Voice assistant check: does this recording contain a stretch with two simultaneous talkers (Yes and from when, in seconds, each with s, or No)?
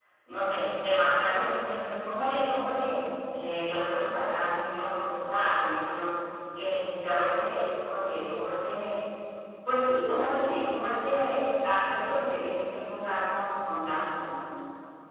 No